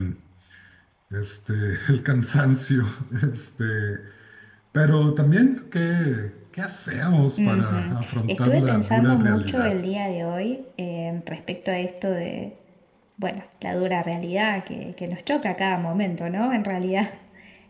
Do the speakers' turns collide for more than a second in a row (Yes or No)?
Yes